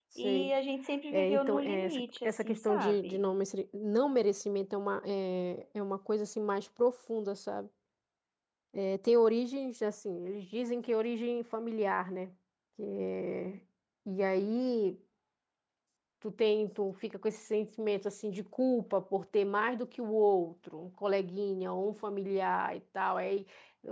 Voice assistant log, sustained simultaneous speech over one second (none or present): present